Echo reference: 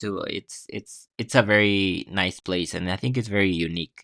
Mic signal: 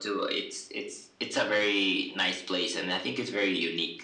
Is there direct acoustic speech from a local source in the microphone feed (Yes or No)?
No